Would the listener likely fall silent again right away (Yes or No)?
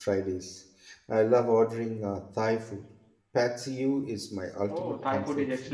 No